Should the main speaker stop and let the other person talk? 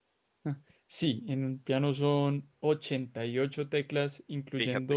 No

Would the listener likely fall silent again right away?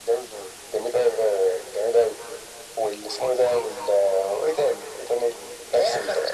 No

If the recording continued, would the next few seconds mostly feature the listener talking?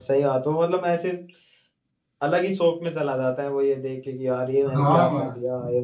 Yes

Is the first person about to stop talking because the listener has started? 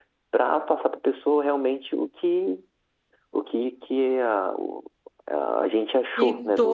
Yes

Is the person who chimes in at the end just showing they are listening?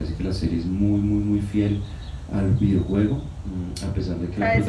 No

